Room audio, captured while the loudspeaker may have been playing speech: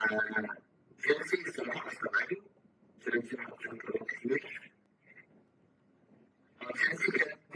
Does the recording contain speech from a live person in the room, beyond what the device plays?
No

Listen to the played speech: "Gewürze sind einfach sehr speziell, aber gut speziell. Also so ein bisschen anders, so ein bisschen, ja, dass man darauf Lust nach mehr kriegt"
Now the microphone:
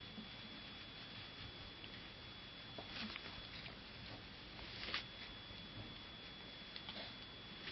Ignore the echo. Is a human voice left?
No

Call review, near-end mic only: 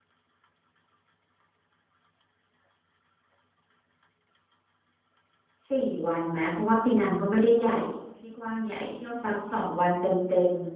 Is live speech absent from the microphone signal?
No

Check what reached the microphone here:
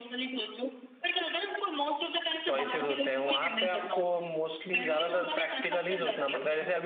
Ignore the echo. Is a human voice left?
Yes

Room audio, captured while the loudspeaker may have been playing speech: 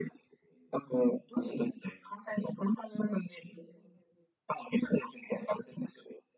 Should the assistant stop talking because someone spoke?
No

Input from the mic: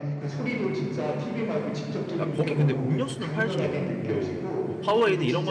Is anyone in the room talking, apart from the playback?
Yes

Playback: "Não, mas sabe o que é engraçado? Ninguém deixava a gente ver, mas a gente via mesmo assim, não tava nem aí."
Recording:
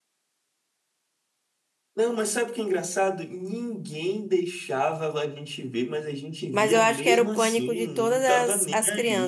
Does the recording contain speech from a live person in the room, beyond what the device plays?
Yes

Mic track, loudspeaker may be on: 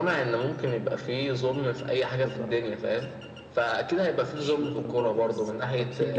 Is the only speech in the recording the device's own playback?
No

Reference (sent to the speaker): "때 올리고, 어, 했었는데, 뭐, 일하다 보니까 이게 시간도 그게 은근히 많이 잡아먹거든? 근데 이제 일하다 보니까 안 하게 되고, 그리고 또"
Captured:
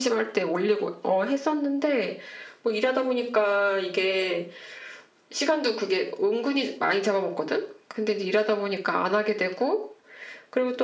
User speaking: No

